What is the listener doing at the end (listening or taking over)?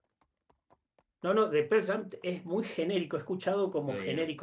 listening